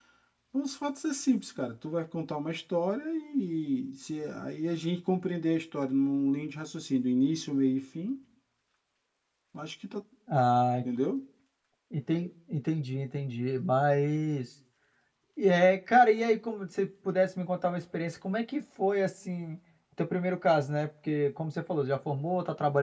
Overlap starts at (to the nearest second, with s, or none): none